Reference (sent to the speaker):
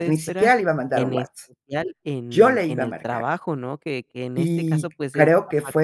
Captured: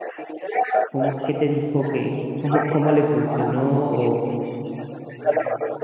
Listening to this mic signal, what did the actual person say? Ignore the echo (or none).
¿cómo qué te dijo que cómo cómo le funcionó o